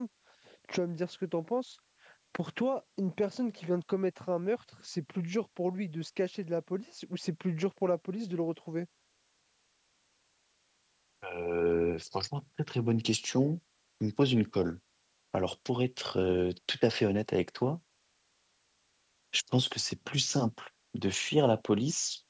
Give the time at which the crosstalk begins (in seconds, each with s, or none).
none